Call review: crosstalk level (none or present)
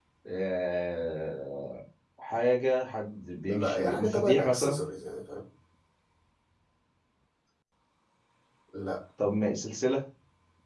present